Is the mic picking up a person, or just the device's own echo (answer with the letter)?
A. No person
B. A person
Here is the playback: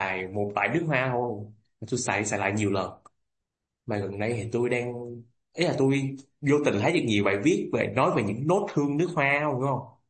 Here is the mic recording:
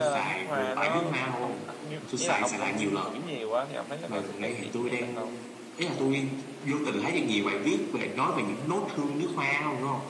B